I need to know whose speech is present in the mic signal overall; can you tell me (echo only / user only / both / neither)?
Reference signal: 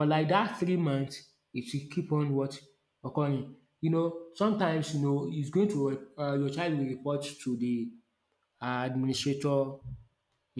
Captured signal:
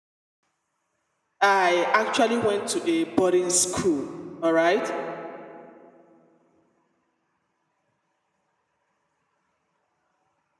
user only